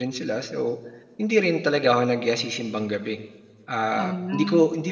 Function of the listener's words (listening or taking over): listening